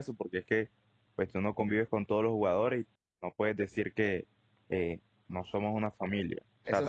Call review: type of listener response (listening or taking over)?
taking over